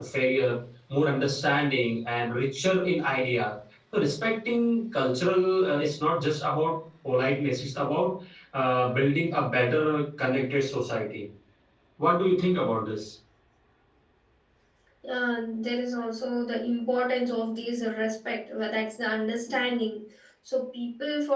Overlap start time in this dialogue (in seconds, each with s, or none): none